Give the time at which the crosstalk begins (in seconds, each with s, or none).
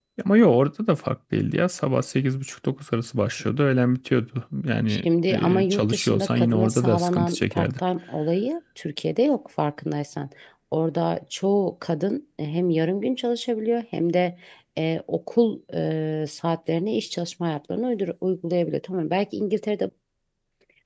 4.9 s